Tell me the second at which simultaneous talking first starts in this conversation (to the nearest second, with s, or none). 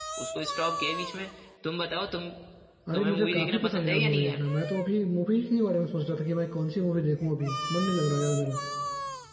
3 s